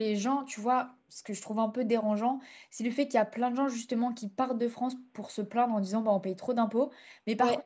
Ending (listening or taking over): listening